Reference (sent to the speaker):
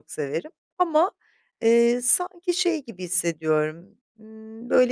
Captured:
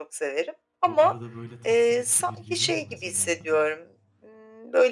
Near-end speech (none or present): present